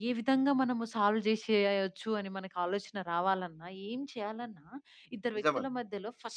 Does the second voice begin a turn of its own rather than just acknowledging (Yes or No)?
No